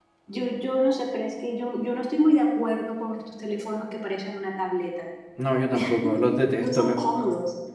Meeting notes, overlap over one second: none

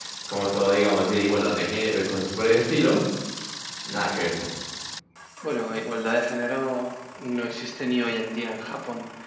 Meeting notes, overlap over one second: none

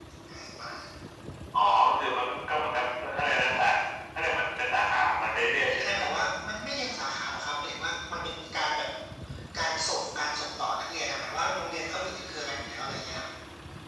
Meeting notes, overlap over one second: none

